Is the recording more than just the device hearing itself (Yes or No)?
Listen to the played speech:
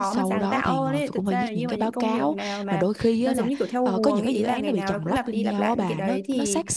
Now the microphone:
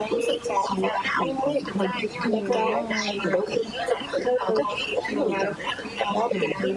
Yes